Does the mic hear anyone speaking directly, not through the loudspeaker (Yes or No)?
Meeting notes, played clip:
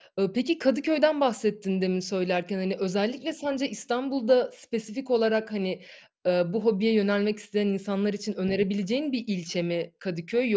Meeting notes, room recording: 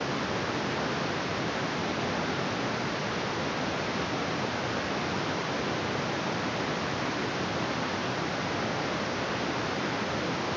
No